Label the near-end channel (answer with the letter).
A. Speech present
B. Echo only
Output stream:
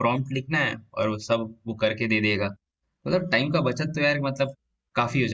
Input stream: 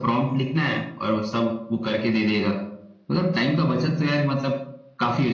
B